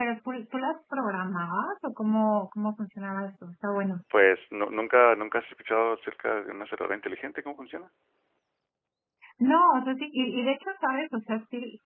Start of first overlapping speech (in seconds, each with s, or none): none